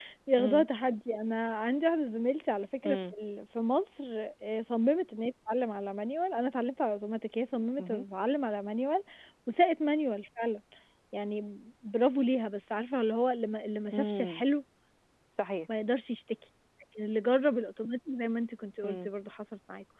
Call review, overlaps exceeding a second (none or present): none